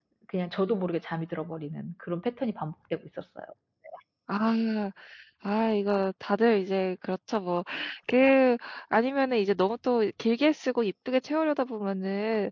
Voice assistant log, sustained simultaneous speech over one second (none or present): none